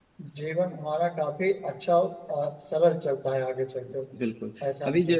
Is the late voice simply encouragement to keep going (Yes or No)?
No